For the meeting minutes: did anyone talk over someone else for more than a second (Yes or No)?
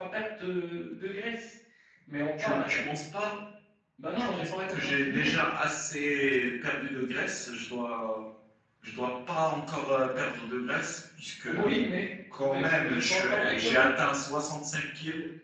Yes